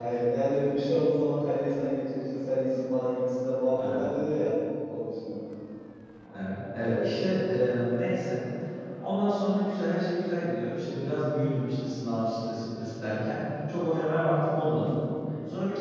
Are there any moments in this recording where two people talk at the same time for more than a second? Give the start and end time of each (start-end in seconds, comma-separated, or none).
none